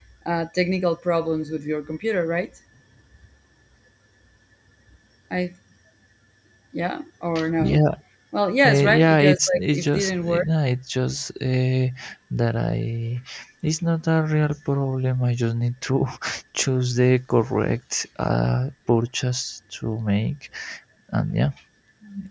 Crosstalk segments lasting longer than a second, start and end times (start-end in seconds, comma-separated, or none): 8.6-10.5